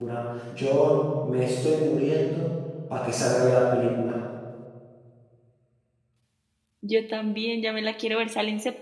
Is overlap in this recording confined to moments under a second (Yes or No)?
Yes